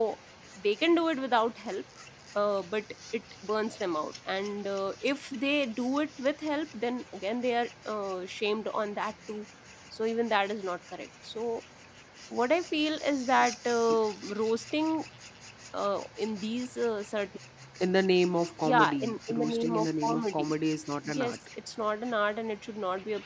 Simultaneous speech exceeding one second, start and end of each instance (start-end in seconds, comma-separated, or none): 18.6-20.5